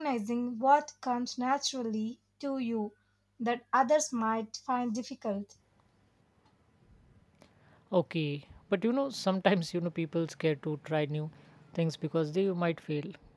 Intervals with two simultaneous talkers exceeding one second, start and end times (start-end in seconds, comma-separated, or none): none